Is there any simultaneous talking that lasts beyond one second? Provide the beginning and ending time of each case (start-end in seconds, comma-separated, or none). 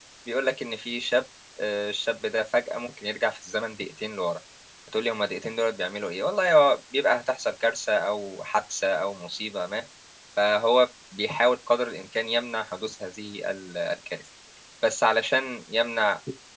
none